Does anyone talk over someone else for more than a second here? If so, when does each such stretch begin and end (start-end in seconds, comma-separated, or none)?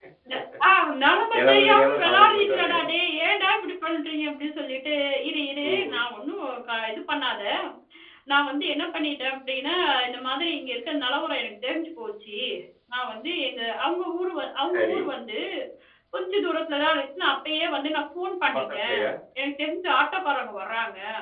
1.4-2.7